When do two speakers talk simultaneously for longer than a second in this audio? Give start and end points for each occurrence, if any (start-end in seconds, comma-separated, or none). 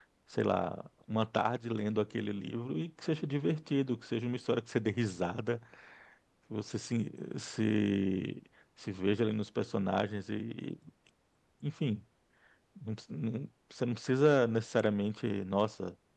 none